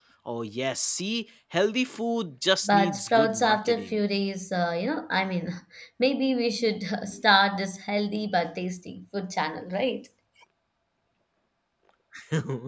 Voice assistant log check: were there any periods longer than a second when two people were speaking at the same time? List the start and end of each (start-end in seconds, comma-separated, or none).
2.6-4.0